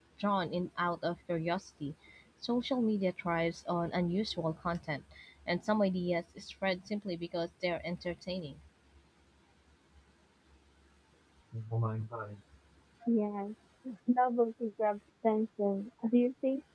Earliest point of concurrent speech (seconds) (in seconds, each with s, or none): none